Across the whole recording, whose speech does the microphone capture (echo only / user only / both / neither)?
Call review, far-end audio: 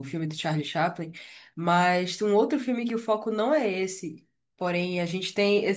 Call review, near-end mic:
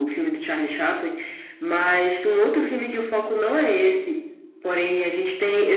echo only